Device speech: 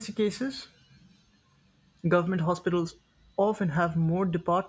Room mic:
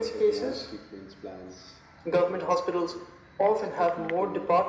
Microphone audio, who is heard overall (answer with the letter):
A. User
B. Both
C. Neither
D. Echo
B